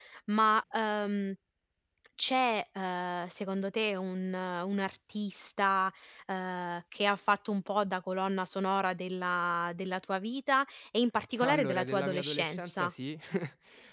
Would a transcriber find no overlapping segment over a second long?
No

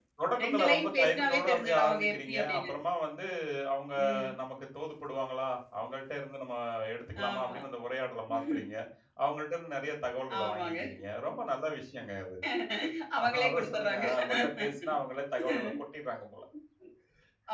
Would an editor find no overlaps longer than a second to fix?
No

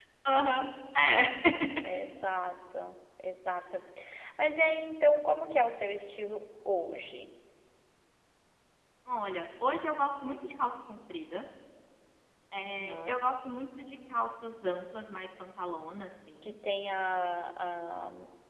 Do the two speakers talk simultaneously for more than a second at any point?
No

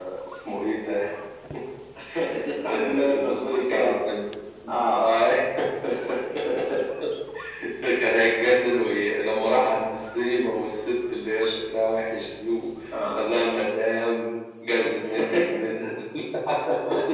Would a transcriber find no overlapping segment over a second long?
No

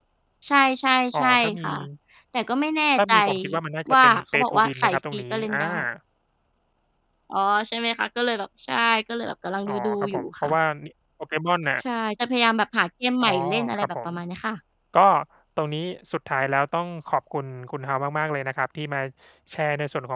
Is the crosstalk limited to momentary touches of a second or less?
No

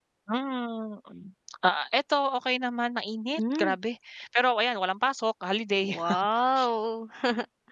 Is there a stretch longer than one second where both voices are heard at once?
No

